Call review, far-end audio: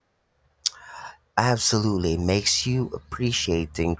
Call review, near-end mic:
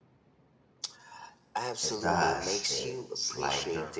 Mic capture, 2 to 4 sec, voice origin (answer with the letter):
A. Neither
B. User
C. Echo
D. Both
D